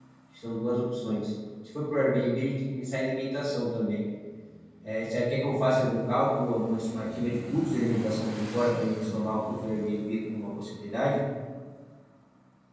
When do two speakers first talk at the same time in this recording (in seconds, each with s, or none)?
none